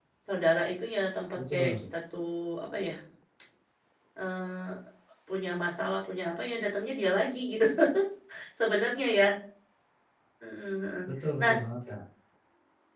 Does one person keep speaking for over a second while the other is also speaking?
No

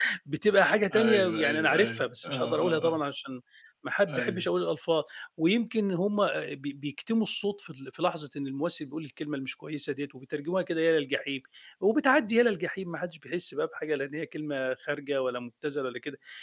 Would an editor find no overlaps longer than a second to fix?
No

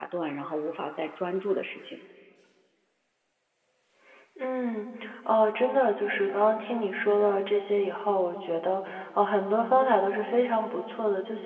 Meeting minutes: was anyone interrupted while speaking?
No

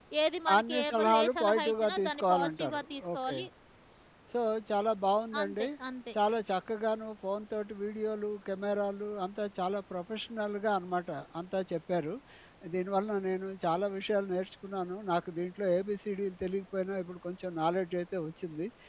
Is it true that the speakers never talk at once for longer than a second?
No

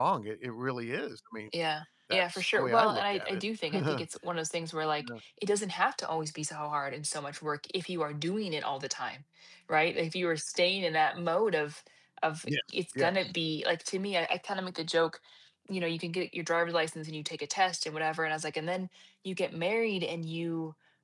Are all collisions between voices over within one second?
No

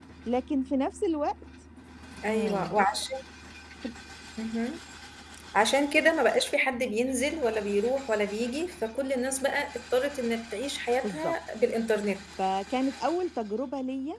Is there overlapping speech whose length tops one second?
No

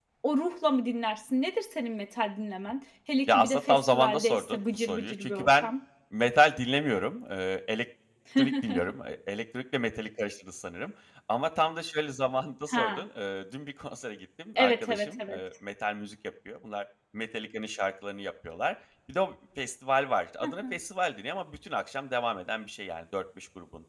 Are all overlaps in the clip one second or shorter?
No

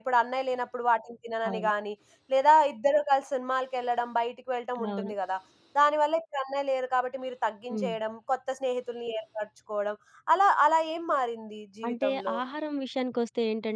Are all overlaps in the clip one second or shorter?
Yes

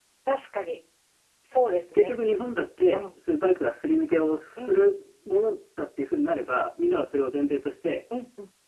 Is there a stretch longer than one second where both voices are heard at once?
No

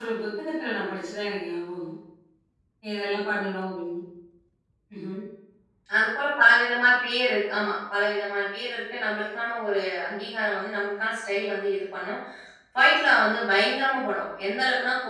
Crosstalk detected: No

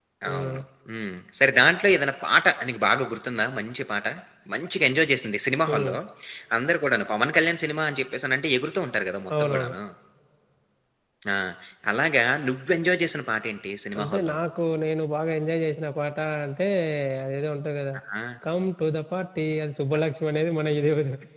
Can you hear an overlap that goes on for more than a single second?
No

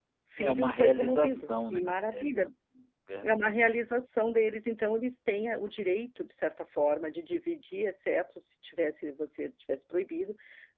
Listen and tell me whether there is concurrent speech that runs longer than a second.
Yes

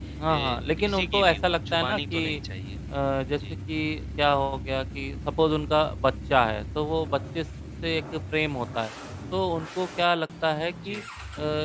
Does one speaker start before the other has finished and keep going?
Yes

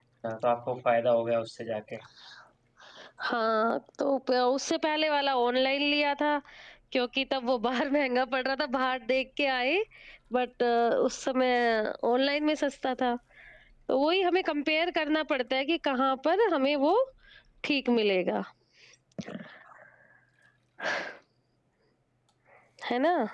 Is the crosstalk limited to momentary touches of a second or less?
Yes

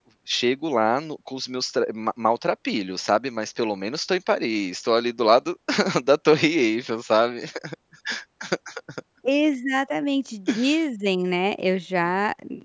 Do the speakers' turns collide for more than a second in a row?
No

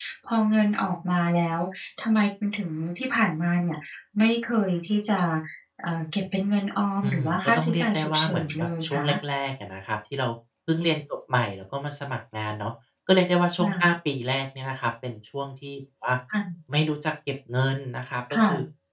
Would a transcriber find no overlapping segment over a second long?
No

